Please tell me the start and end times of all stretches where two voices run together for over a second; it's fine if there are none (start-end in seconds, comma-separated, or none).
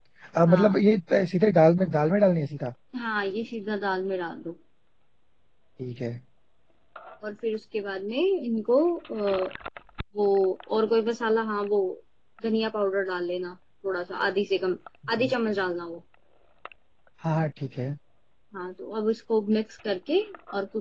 none